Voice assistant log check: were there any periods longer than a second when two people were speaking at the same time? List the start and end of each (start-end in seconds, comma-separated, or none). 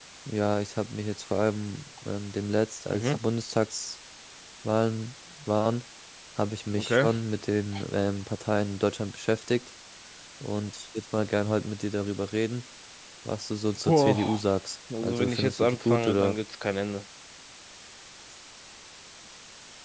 15.0-16.4